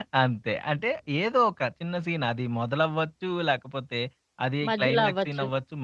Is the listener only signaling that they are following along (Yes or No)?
Yes